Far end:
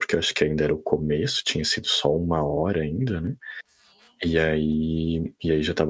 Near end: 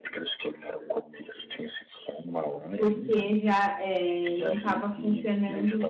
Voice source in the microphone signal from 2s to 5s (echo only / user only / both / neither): both